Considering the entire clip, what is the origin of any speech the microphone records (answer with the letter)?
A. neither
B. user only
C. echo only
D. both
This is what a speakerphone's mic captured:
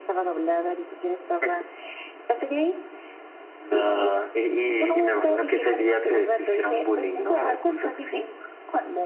C